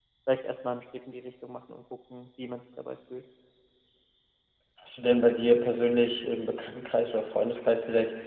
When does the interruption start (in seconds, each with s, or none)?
none